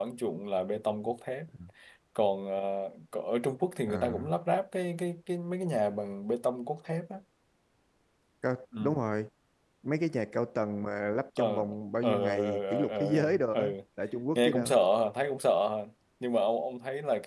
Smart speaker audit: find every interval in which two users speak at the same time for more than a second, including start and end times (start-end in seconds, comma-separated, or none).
12.0-13.6